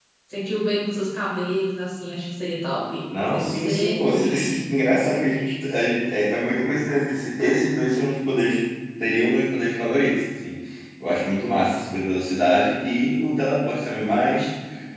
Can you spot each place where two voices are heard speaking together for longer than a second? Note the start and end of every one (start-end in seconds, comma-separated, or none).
3.3-4.7